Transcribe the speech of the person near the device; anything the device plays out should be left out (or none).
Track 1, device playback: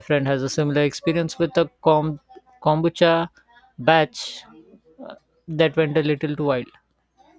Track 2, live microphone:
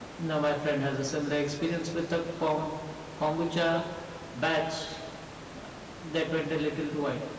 none